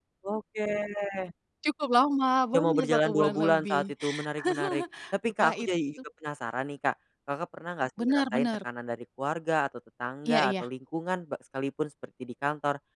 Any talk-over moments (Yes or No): Yes